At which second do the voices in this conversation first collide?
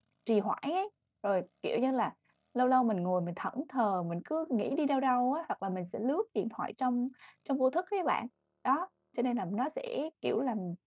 none

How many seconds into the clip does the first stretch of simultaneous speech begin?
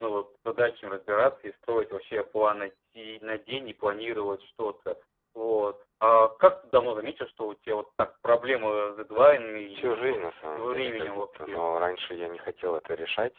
10 s

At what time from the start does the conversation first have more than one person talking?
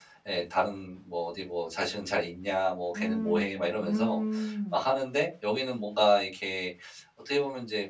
3 s

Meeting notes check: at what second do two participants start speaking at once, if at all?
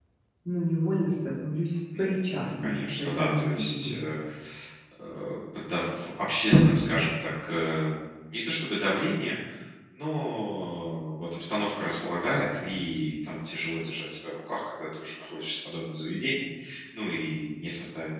2 s

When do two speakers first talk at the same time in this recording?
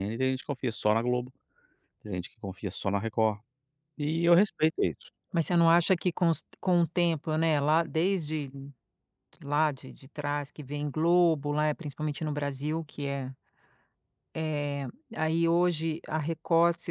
none

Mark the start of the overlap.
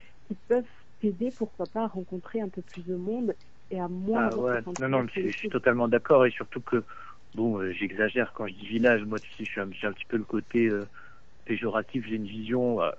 4 s

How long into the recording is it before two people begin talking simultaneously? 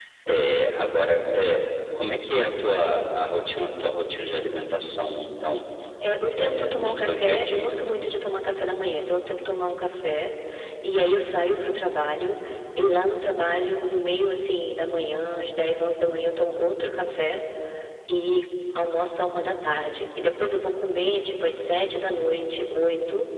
6 s

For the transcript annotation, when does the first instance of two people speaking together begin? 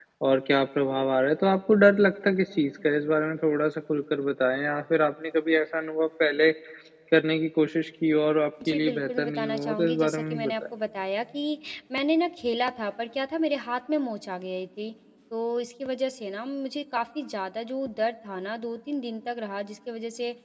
9 s

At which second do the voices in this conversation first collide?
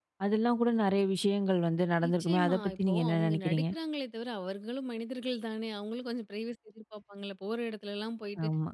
2 s

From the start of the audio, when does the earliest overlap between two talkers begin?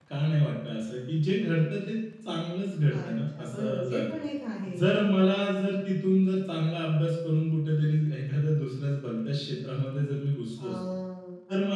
3 s

